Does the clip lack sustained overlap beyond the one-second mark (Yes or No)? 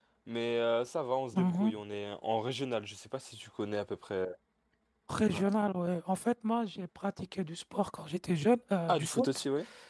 Yes